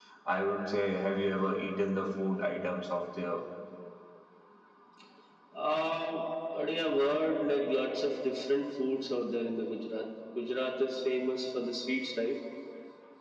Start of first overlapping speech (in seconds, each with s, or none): none